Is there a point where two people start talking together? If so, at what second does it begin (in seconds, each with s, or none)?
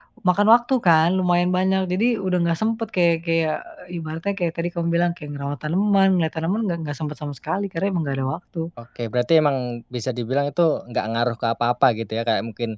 none